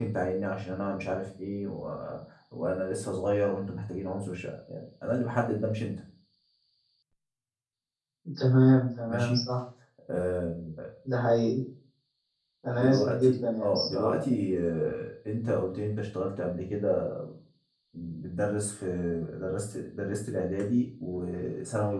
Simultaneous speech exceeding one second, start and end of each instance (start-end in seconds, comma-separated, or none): 12.7-14.4